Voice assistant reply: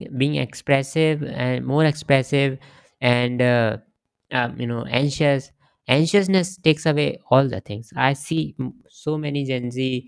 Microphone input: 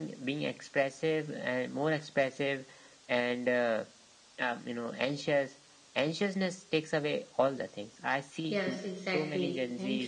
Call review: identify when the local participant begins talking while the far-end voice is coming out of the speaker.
8.5 s

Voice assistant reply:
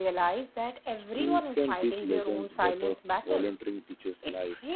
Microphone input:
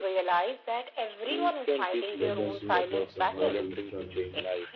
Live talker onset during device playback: 2.2 s

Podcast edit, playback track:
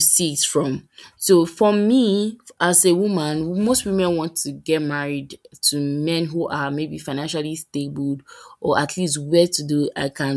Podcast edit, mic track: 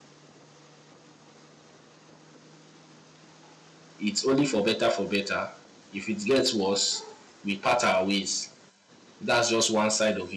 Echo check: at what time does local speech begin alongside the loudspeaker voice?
4.0 s

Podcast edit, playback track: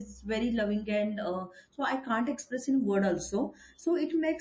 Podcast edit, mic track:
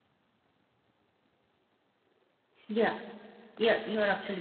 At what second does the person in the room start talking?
2.7 s

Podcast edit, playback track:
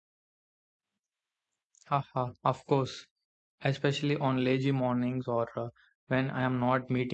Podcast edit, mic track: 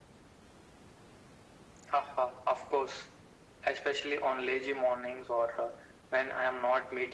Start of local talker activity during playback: none

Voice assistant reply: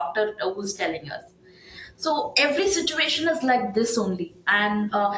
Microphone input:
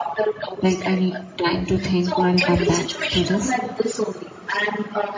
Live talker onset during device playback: 0.6 s

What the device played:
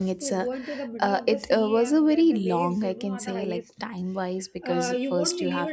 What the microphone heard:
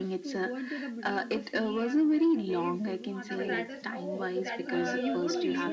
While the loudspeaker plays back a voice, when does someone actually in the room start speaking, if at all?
3.3 s

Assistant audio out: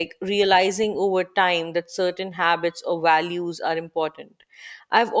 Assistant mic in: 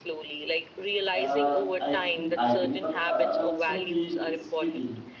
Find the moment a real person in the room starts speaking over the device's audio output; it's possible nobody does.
1.1 s

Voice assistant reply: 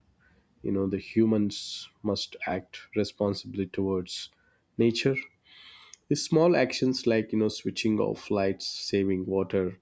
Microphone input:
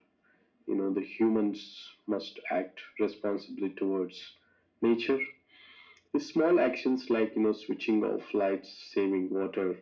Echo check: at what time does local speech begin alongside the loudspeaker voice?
none

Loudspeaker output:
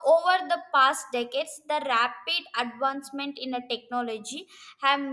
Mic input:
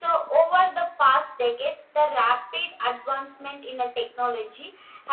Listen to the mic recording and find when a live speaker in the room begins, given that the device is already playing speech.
none

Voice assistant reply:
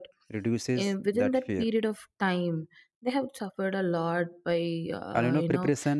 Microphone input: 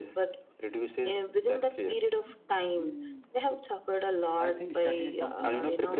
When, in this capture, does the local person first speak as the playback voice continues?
4.4 s

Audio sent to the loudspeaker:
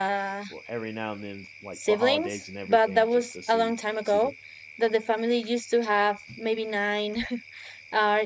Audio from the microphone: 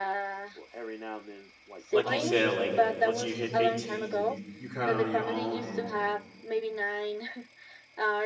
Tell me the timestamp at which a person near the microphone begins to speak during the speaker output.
1.9 s

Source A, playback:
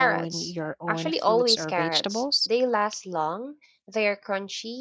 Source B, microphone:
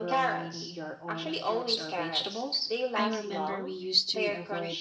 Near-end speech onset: 3.0 s

